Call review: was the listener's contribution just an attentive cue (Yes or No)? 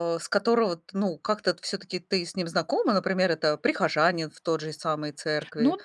No